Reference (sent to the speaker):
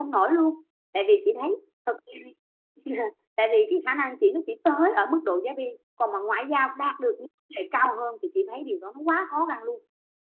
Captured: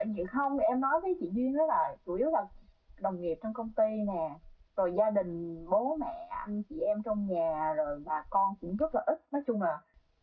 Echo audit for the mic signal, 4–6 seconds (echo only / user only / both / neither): user only